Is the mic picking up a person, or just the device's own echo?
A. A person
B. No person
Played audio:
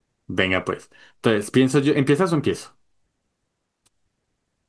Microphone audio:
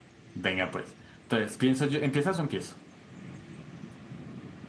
B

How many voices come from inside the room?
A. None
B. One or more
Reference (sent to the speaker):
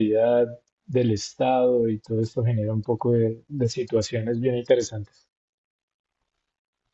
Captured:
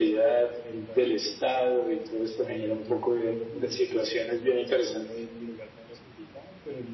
B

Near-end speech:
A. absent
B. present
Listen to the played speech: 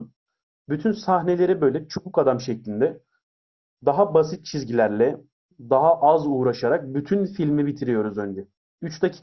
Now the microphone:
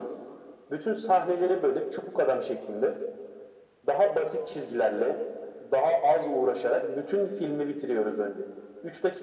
A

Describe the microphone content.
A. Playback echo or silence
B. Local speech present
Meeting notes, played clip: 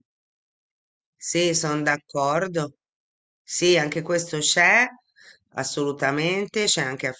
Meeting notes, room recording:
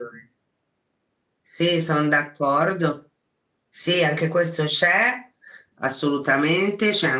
A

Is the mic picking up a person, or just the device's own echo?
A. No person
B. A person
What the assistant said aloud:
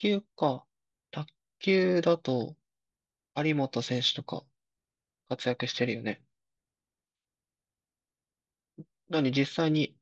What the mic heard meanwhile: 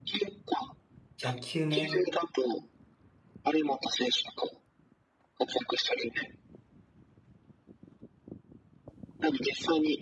B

